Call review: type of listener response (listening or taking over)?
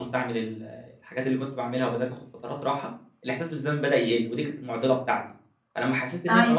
listening